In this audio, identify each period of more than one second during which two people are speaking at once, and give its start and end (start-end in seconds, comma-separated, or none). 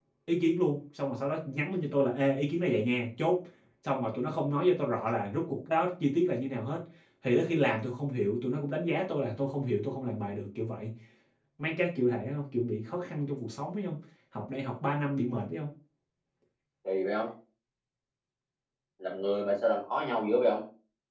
none